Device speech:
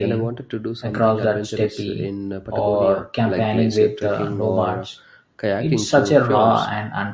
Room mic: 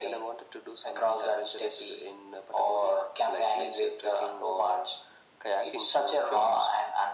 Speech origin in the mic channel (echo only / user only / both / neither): echo only